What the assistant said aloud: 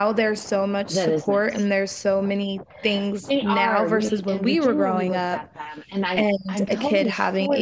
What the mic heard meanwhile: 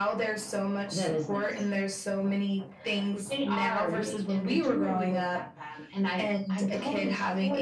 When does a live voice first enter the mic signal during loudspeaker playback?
none

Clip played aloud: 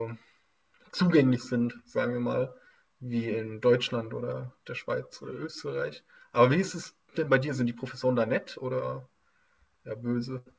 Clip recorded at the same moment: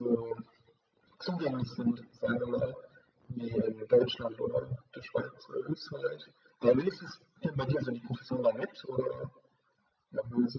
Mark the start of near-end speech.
none

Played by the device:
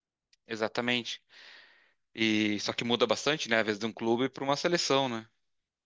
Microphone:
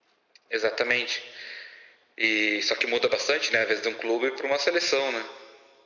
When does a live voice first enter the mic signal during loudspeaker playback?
none

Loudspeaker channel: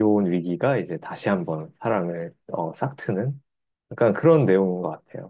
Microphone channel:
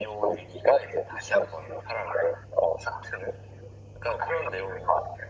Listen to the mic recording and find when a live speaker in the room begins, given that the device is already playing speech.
none

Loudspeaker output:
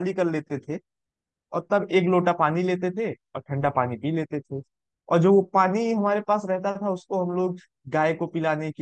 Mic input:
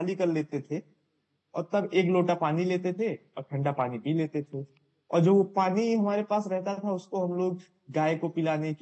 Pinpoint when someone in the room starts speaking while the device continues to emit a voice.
none

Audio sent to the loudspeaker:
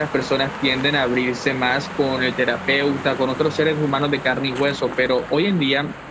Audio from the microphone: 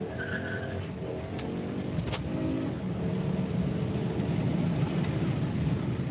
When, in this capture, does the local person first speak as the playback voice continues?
none

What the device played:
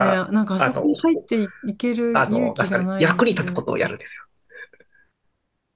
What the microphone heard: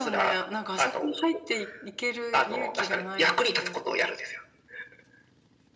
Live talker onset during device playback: none

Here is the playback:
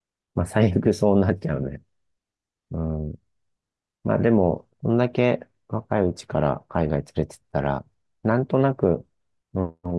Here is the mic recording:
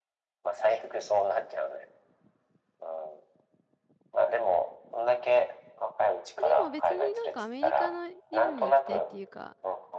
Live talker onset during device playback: 6.4 s

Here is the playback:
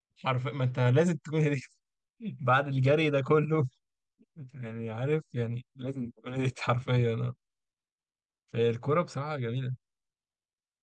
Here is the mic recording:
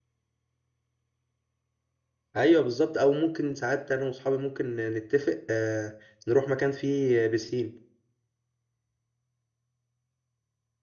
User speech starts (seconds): 2.4 s

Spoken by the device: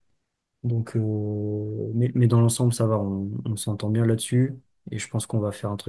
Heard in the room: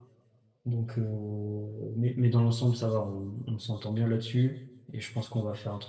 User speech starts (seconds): none

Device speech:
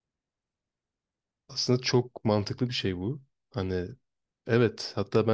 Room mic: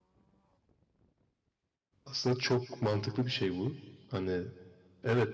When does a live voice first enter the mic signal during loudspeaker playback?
none

